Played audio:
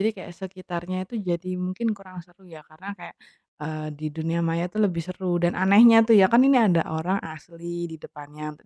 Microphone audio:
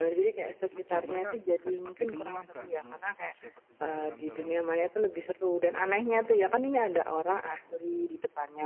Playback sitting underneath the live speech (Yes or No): No